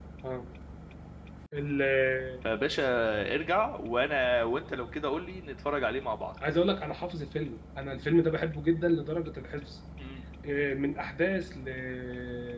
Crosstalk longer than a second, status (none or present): none